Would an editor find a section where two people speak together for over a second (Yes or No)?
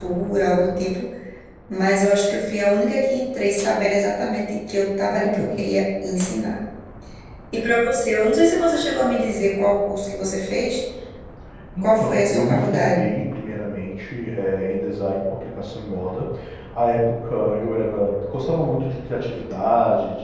Yes